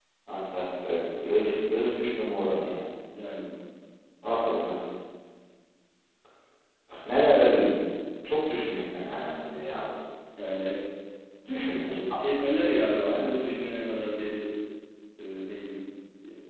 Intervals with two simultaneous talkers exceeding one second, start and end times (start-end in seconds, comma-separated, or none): none